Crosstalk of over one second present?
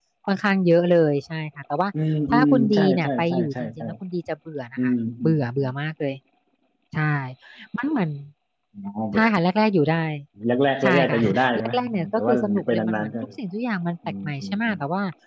Yes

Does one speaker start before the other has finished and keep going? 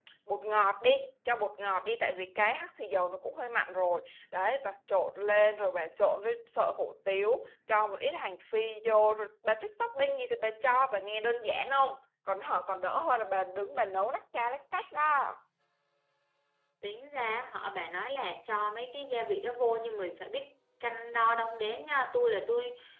No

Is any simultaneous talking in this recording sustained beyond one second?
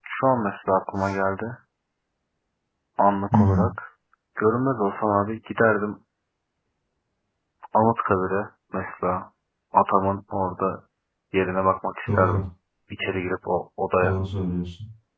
No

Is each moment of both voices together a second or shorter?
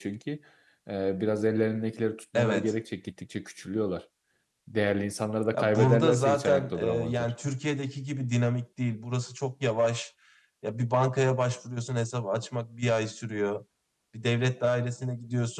No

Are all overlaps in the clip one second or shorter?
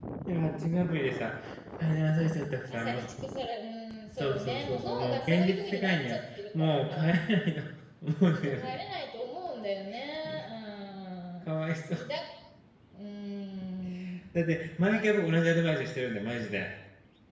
No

